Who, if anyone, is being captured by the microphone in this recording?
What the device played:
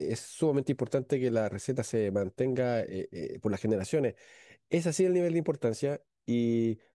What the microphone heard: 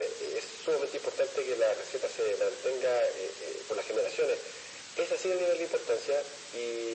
echo only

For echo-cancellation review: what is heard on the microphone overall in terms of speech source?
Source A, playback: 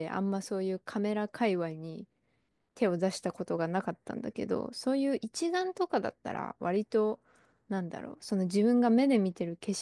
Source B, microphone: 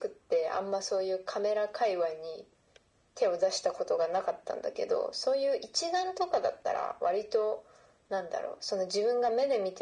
echo only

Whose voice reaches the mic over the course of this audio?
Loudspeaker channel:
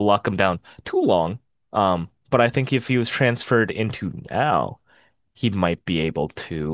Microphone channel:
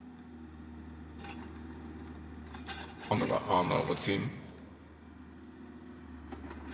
user only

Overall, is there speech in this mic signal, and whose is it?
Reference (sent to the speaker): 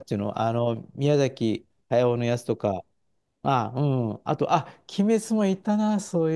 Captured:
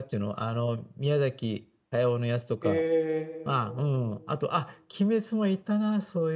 both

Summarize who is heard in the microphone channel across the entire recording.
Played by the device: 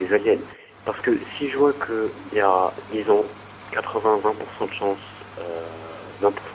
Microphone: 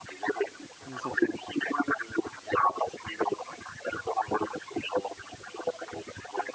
both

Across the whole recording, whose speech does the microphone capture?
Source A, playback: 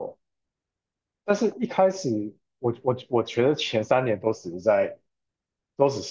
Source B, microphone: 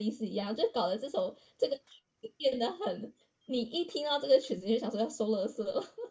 user only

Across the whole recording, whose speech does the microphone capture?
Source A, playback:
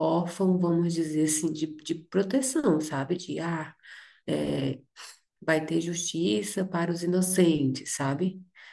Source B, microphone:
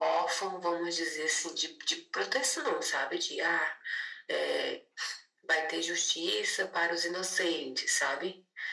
echo only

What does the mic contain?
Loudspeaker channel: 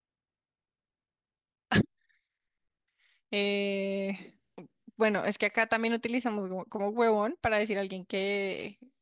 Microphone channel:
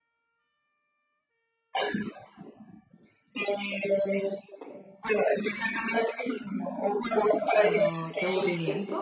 both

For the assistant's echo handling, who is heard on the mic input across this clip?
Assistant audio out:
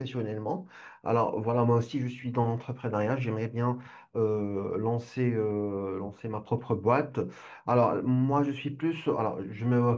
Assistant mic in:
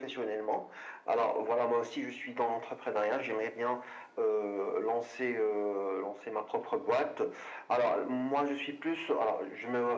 echo only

